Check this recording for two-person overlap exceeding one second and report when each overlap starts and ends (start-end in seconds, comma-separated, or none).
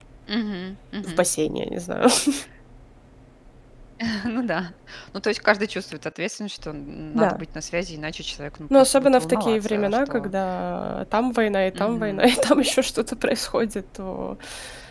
8.7-10.3